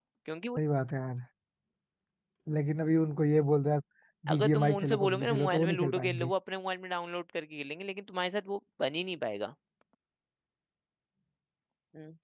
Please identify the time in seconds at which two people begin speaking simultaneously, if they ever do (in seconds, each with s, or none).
4.3 s